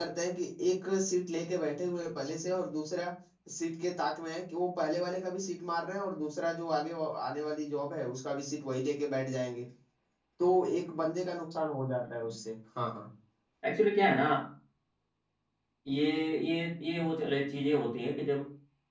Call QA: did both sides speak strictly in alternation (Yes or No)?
Yes